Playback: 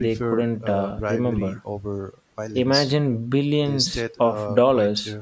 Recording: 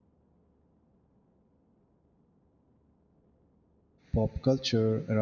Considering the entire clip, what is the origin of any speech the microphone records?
user only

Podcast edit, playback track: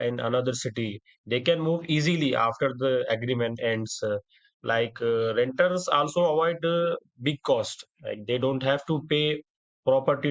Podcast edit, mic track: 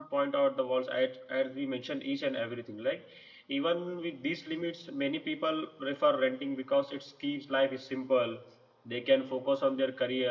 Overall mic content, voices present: user only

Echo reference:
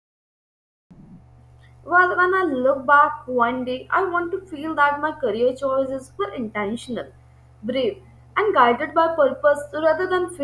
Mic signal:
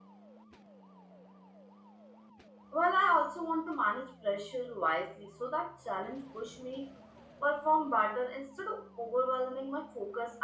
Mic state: user only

